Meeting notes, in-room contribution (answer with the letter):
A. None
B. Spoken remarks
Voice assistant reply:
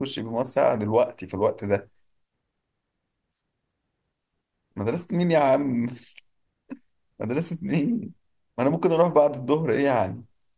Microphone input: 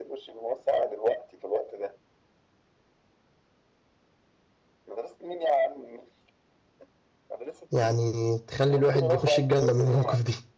B